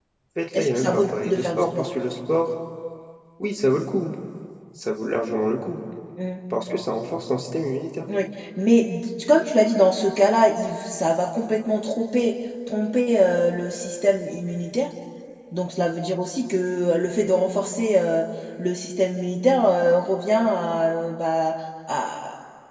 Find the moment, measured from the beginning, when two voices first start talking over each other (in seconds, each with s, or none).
0.5 s